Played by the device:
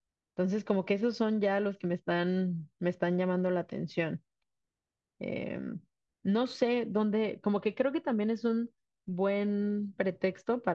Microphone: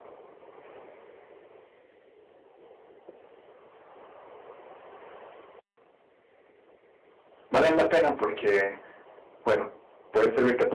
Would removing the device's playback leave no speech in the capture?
No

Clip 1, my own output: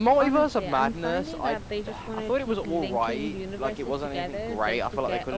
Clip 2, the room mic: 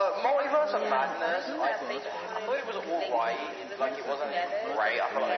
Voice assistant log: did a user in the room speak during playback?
Yes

